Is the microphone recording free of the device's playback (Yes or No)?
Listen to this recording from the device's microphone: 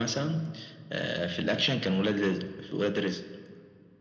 No